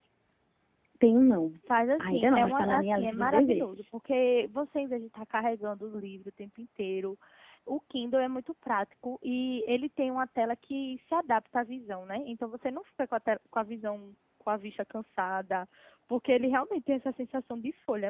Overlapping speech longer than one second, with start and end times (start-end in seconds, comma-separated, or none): 2.0-3.7